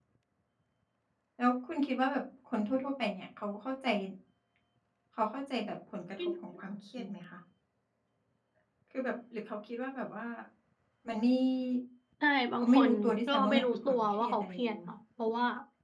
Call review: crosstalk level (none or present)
present